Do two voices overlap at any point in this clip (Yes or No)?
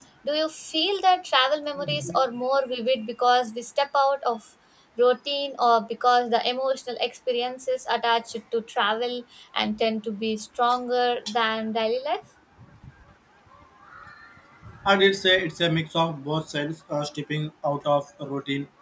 No